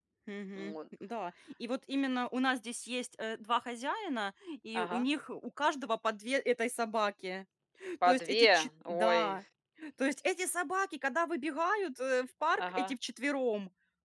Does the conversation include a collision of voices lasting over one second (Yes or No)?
Yes